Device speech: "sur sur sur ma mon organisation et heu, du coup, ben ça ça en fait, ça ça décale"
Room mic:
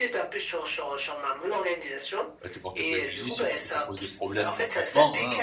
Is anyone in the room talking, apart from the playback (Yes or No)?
Yes